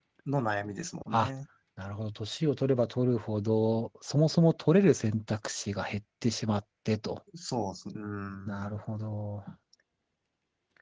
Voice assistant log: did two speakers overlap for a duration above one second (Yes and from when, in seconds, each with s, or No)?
No